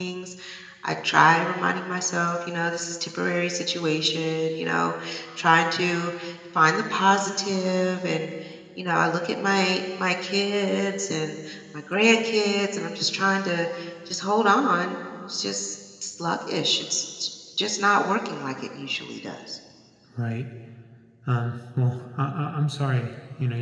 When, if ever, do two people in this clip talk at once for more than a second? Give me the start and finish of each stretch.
none

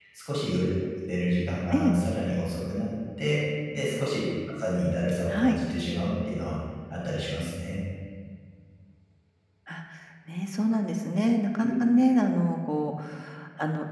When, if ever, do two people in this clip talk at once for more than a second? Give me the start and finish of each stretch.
none

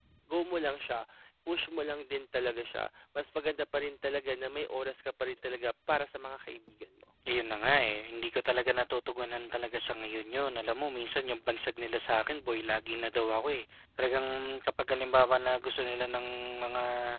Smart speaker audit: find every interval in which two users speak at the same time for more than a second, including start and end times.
none

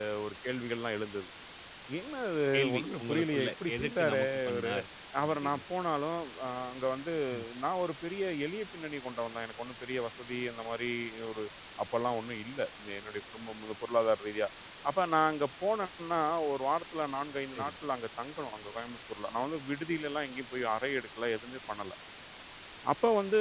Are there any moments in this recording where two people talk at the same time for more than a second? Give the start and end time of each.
2.5-4.7

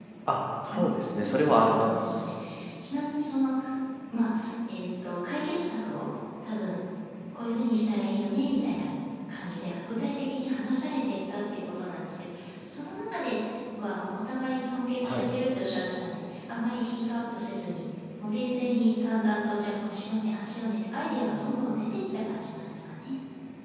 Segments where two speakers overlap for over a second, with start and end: 0.7-2.2

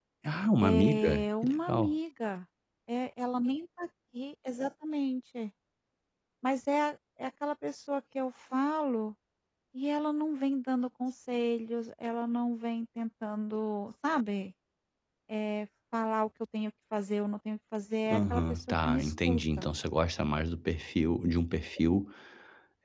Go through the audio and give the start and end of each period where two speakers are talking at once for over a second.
0.6-1.9, 18.1-19.7

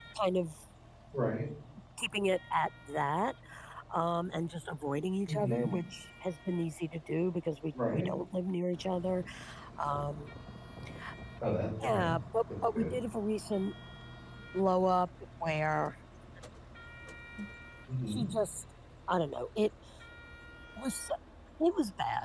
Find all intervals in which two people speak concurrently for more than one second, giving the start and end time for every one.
none

